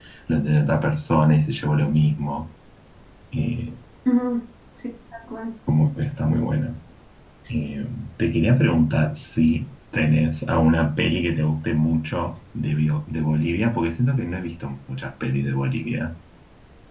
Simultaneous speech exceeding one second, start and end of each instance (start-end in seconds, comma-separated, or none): none